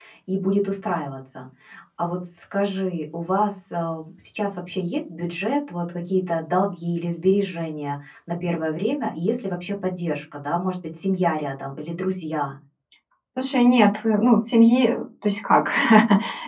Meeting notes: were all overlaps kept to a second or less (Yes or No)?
Yes